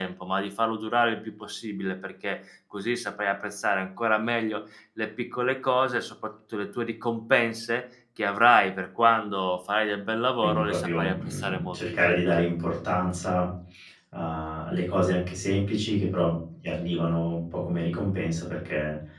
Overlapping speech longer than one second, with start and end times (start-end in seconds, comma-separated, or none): 10.4-12.2